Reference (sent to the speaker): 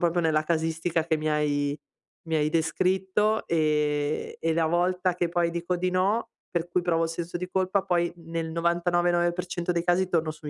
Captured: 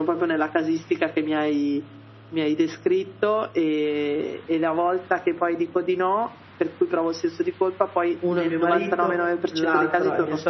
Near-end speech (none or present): present